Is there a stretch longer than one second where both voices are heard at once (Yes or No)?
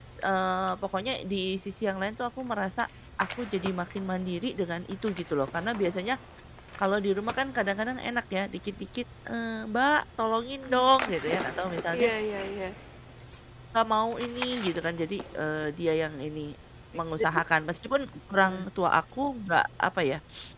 No